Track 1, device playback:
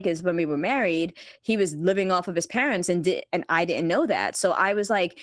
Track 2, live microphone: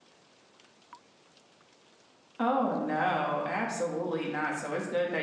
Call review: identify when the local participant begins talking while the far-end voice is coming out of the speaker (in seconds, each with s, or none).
2.4 s